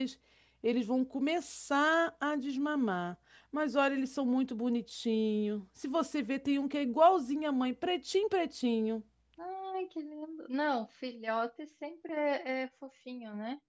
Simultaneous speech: No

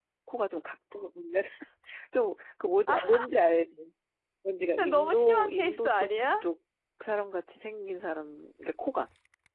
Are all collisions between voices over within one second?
No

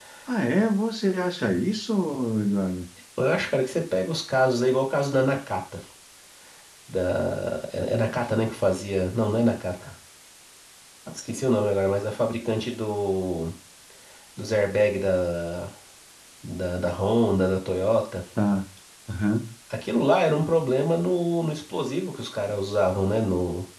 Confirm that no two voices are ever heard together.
Yes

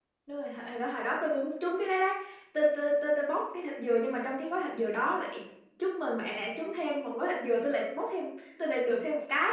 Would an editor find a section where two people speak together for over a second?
No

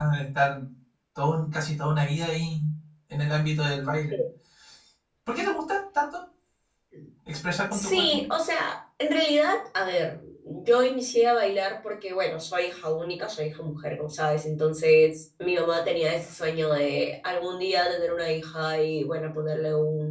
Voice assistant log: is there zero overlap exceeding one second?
Yes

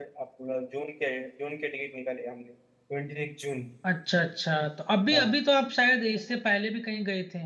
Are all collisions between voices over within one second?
Yes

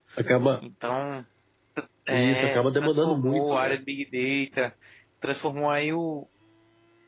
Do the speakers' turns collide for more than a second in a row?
Yes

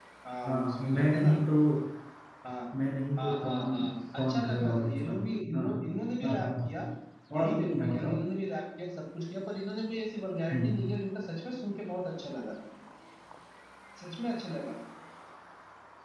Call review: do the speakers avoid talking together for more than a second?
No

